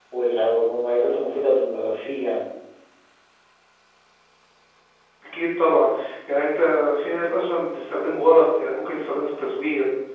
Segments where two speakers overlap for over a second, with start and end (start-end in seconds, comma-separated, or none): none